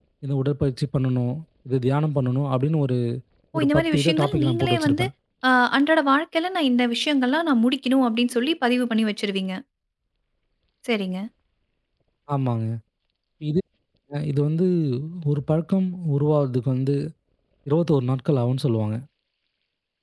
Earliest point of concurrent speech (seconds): 4 s

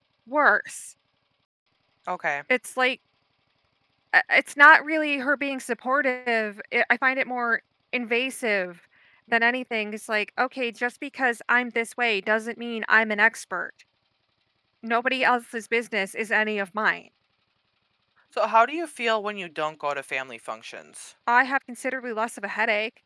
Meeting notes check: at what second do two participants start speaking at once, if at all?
none

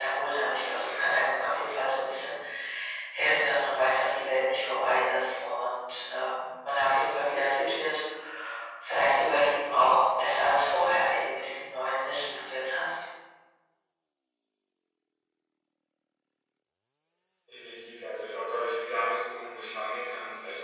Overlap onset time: none

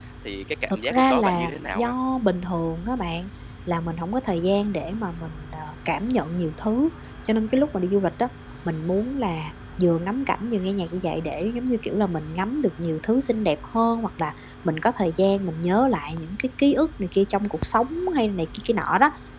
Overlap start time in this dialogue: 1 s

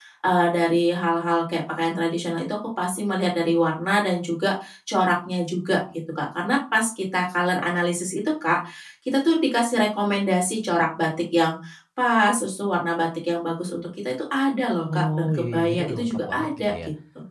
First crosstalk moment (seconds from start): 15 s

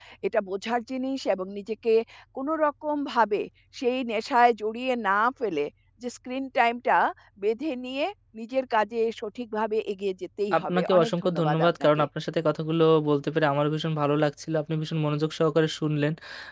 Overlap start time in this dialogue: 11 s

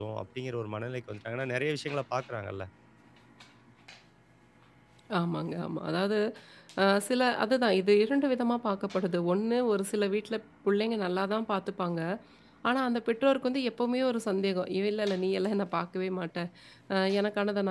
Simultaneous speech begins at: none

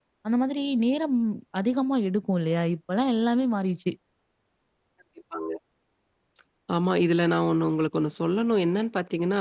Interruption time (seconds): none

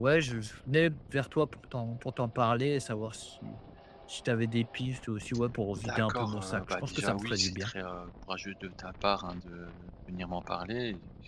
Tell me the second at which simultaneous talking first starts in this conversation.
6 s

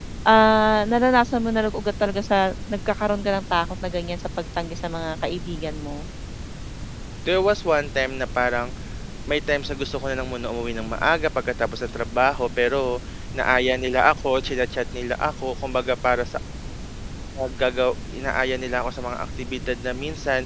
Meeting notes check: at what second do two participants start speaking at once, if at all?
none

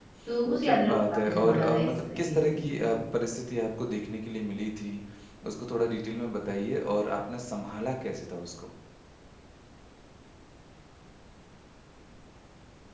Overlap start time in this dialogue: 1 s

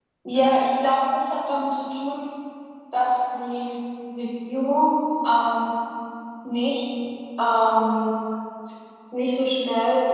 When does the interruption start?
none

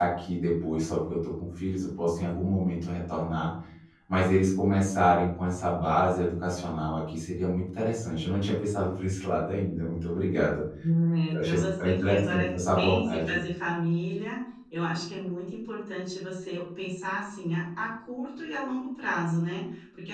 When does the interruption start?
11 s

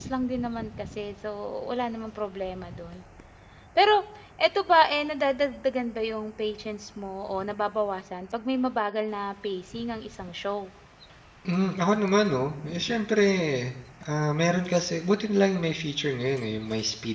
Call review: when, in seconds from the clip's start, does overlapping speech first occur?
none

